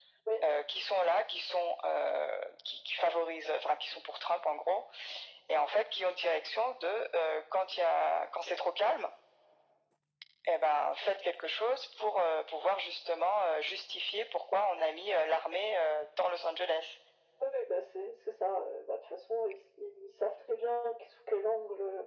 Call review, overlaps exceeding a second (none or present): none